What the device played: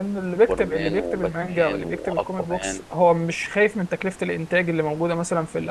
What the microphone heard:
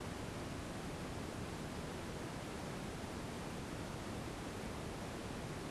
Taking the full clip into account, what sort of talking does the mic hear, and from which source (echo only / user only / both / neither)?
neither